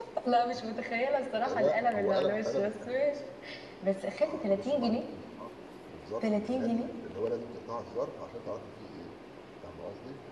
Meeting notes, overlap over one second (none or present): present